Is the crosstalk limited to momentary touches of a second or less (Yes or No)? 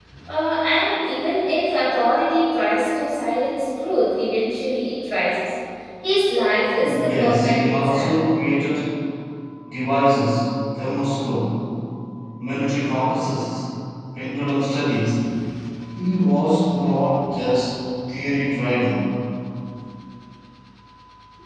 No